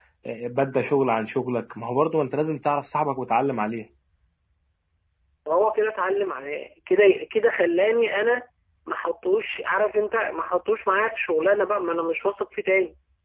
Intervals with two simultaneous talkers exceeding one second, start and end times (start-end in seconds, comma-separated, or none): none